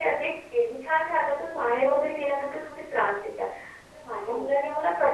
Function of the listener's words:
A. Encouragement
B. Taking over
A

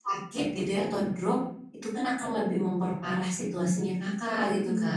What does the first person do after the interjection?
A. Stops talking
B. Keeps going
A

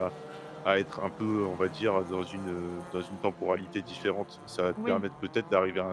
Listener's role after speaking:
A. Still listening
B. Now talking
A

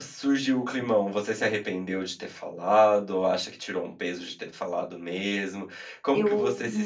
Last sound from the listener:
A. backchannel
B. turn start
A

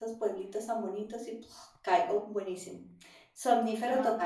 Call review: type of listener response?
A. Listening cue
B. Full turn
B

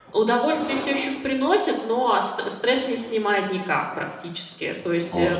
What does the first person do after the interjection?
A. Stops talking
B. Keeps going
B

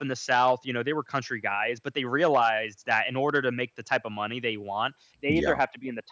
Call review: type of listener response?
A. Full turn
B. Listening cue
B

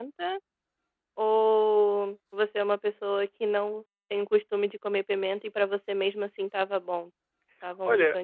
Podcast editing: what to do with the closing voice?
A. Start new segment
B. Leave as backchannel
A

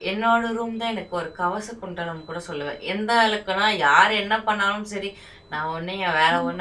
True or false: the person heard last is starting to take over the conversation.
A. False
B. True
A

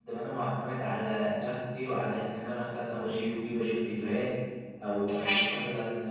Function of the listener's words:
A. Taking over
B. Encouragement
B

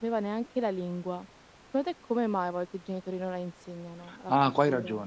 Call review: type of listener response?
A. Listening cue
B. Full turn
B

